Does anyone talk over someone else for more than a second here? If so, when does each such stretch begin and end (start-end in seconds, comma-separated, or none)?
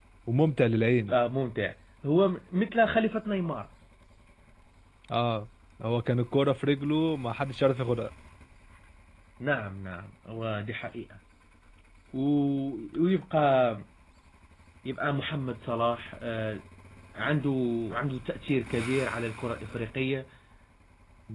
none